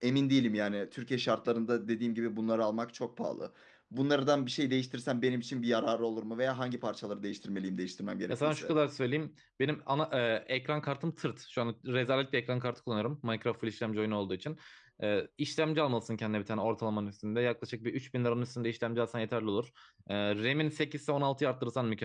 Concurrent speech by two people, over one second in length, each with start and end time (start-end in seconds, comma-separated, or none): none